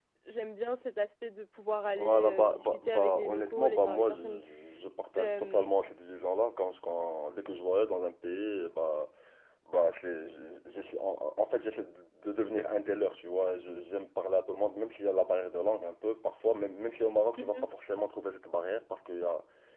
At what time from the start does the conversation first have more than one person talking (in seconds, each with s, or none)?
2.0 s